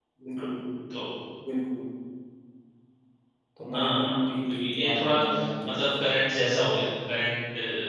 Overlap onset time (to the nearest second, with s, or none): 4 s